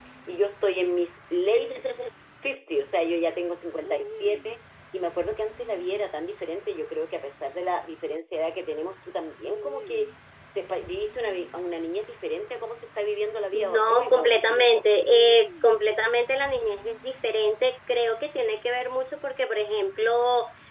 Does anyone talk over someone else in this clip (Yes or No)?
Yes